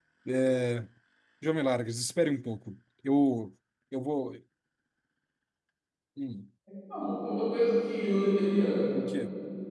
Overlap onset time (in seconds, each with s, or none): none